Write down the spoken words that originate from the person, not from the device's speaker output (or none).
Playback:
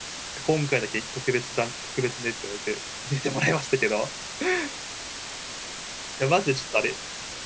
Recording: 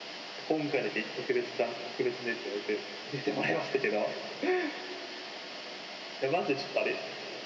none